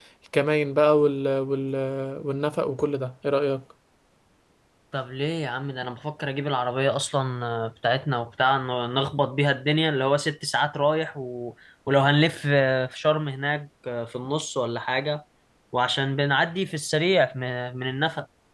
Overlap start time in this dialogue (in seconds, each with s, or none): none